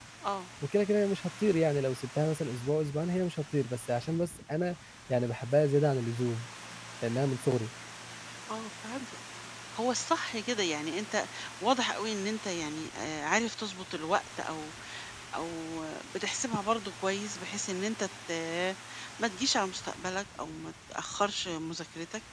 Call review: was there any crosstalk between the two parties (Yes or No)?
No